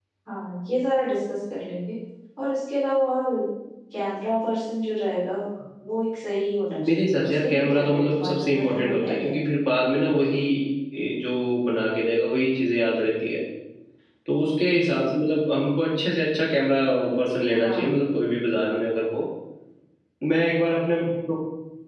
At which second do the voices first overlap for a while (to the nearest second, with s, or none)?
7 s